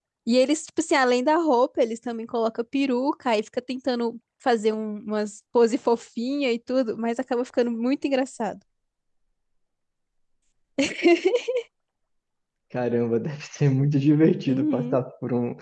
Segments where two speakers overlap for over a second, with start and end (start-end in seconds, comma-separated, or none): none